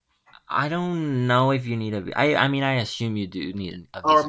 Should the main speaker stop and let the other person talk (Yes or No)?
Yes